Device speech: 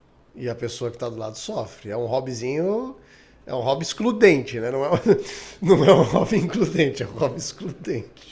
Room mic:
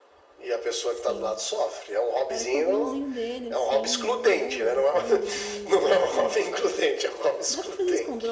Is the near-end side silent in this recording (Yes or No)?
No